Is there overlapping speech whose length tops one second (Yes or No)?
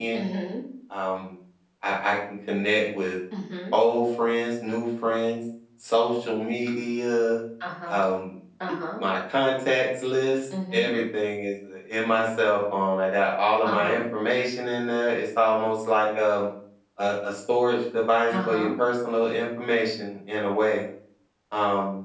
No